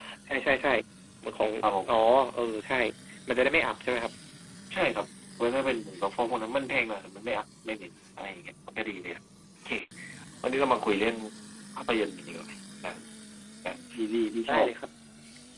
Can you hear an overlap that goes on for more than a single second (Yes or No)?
No